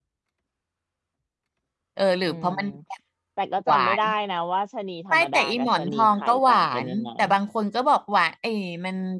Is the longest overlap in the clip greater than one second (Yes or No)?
Yes